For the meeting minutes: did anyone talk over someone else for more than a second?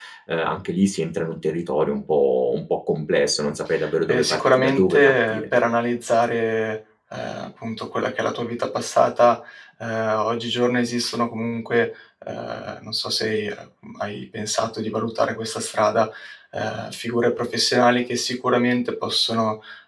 Yes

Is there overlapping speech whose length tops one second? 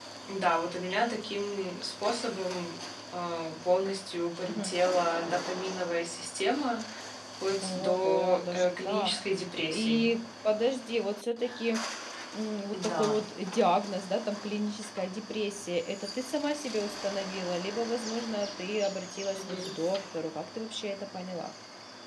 Yes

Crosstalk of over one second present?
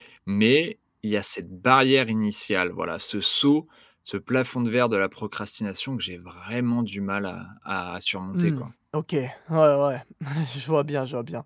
No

